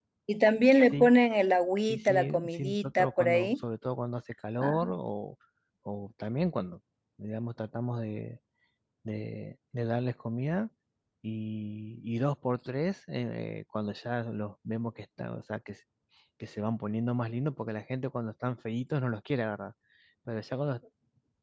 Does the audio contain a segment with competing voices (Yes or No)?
Yes